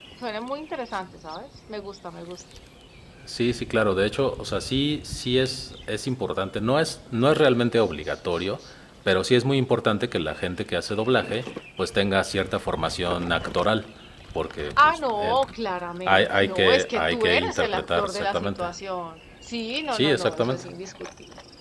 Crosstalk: present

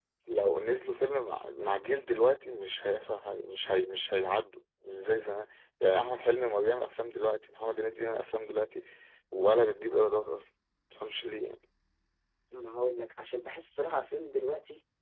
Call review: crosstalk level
none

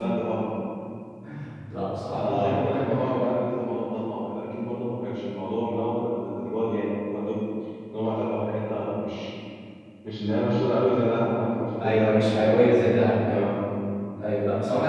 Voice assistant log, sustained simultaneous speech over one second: present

